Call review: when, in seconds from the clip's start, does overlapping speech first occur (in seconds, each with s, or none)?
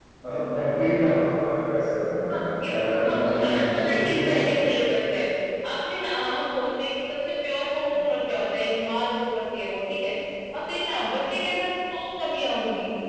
2.3 s